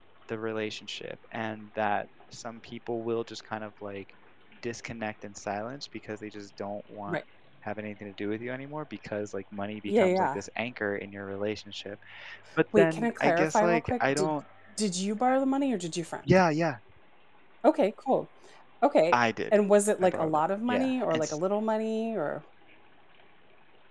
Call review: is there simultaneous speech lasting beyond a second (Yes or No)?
Yes